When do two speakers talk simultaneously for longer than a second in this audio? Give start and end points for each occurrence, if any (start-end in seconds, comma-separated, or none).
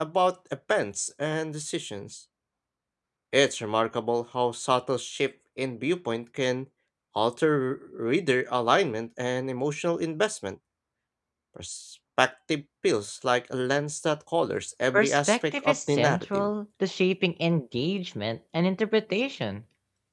14.9-16.5